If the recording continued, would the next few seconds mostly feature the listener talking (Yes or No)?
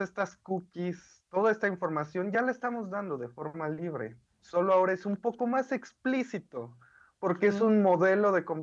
No